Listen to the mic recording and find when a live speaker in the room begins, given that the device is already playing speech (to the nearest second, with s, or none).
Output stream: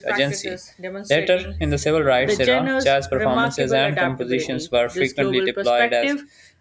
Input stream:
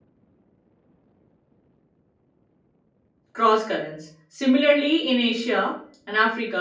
3 s